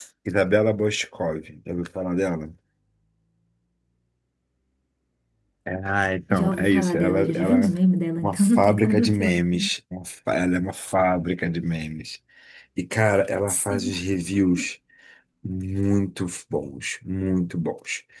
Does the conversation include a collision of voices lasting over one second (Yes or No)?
Yes